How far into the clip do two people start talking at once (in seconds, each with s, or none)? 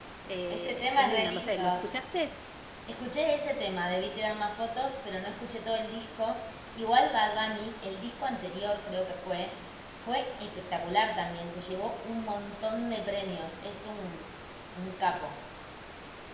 0.5 s